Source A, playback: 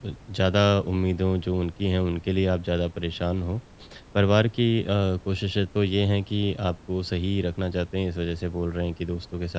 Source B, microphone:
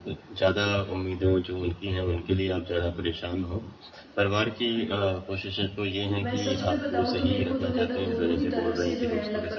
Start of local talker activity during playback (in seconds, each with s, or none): 6.2 s